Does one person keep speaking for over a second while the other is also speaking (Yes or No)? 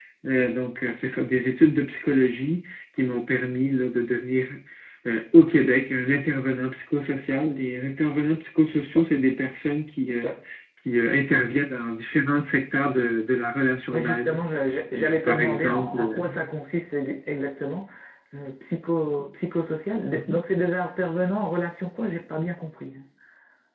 Yes